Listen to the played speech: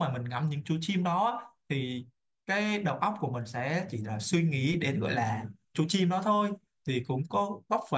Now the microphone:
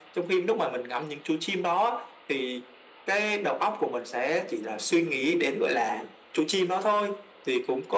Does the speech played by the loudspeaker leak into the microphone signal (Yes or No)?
Yes